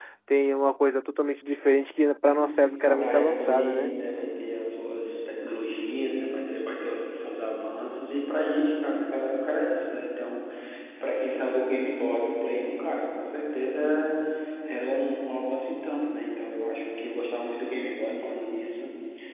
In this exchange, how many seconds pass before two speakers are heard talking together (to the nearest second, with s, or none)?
2 s